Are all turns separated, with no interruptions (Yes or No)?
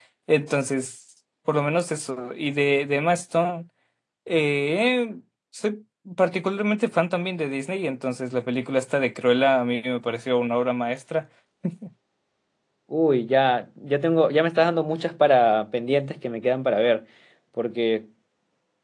Yes